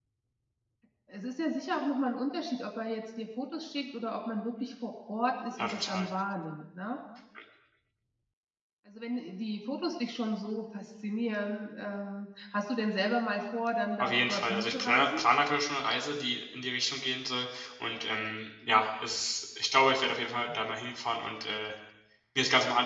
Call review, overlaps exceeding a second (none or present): present